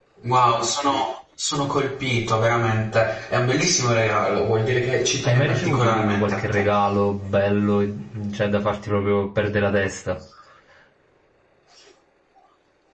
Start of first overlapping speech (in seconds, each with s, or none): 5.2 s